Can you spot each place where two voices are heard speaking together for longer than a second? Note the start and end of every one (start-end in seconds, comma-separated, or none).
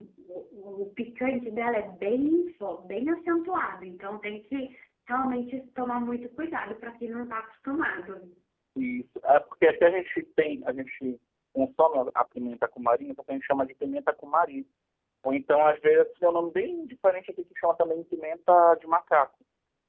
none